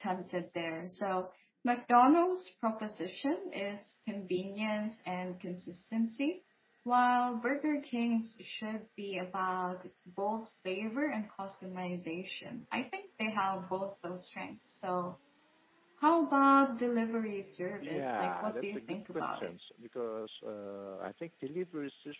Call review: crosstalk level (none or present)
present